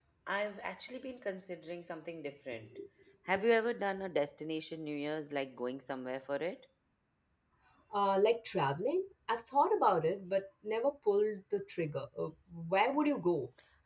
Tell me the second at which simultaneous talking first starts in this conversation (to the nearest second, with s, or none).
none